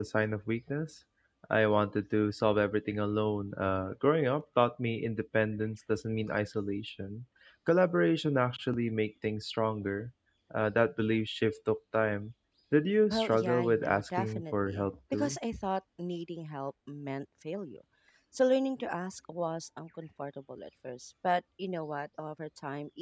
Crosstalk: present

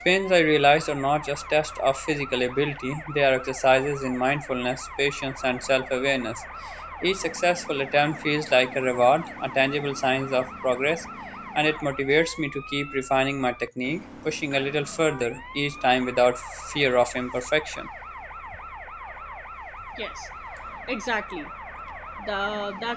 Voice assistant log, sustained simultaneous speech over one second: none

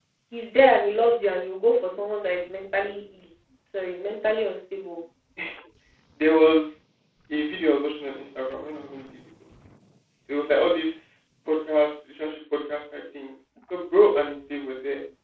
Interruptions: none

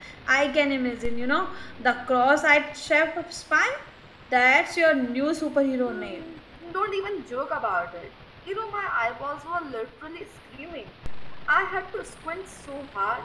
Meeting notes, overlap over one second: none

